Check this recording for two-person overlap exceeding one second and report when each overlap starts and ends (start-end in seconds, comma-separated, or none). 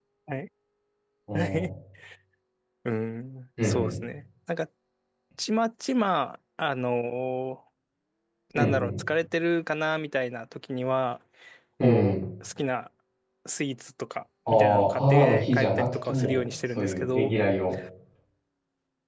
14.5-17.3